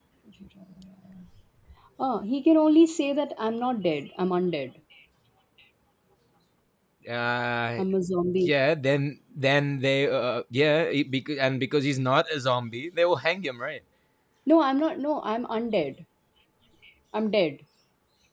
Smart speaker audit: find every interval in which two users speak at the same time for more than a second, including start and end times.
none

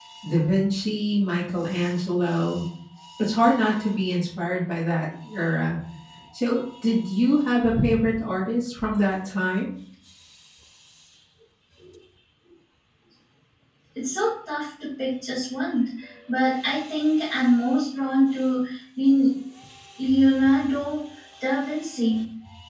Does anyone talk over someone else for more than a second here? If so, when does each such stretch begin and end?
none

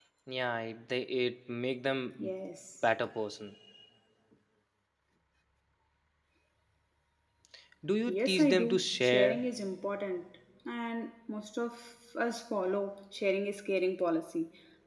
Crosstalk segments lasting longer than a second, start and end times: 8.1-9.4

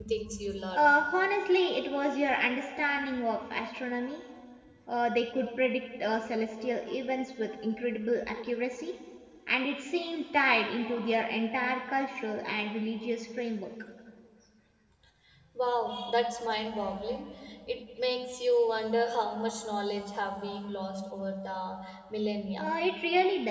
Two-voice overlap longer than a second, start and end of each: none

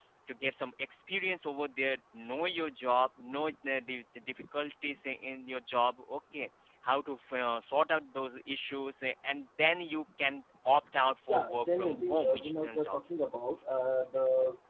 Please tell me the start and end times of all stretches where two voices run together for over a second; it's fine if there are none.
11.3-13.2

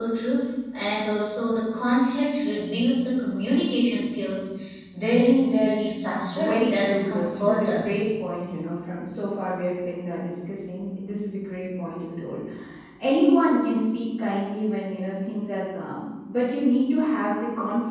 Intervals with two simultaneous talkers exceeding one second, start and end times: 6.3-8.0

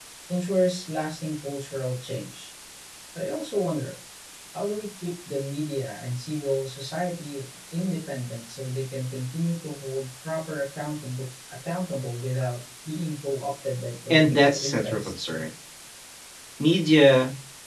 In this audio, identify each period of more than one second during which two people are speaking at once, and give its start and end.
14.1-15.3

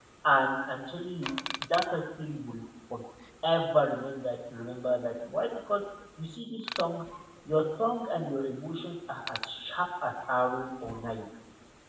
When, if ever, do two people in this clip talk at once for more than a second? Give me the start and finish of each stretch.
none

